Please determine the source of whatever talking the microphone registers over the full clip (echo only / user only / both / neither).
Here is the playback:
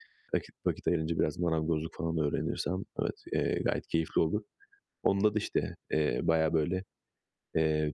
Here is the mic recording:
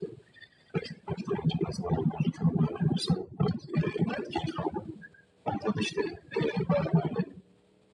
echo only